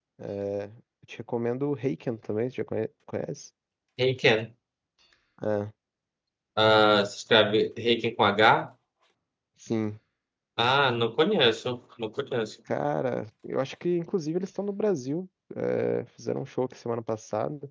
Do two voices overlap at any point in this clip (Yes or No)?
No